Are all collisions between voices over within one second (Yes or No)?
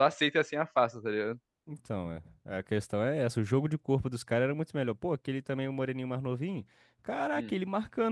Yes